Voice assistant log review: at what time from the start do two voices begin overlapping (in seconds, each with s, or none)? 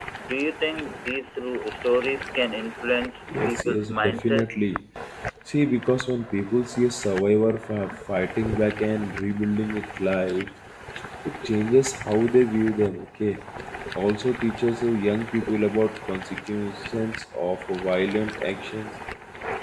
3.3 s